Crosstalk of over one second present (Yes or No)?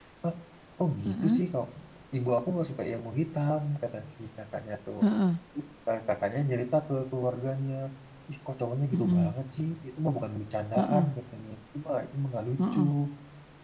No